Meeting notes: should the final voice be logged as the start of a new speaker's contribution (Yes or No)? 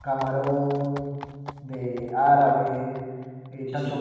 No